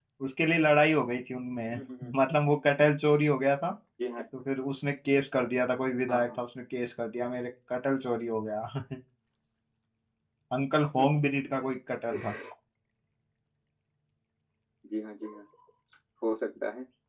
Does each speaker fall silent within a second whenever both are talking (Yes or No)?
Yes